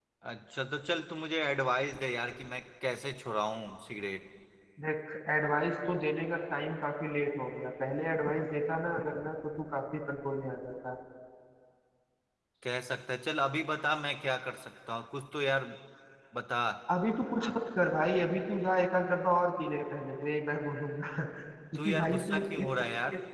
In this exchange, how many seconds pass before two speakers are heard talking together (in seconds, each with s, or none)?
21.8 s